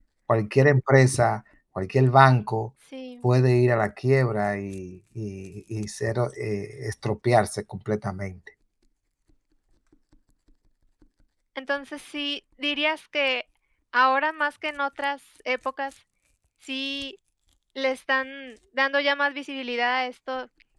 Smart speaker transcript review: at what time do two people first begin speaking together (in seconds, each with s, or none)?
none